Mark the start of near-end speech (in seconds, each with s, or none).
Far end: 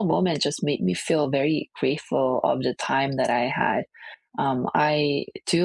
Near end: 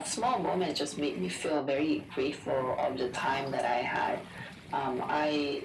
none